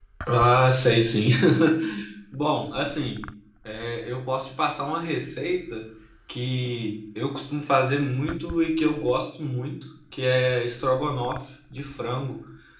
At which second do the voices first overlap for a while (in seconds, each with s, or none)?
none